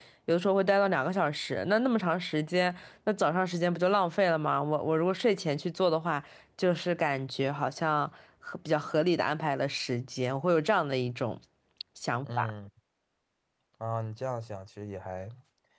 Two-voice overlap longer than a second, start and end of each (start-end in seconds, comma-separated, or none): none